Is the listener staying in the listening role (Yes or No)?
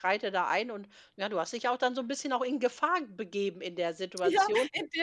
No